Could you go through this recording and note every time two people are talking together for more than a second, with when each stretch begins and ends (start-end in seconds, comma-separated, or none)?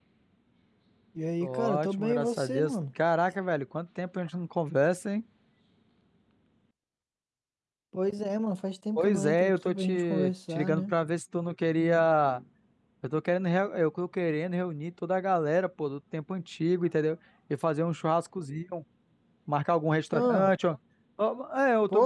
1.4-2.8, 9.0-10.9